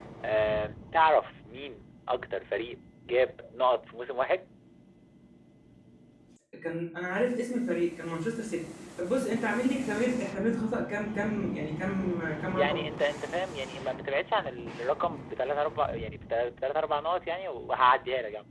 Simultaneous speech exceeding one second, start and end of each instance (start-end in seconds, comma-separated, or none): none